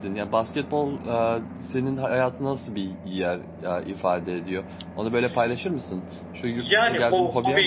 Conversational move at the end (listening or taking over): taking over